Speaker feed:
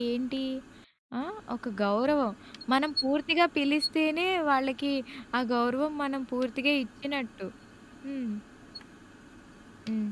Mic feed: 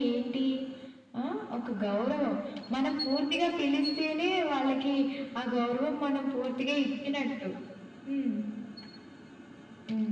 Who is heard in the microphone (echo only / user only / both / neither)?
echo only